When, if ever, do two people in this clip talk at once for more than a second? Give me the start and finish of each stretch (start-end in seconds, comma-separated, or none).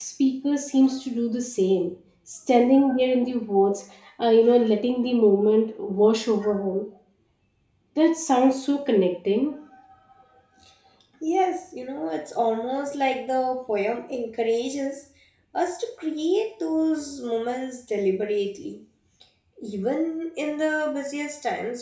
none